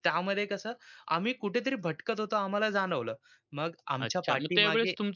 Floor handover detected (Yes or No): Yes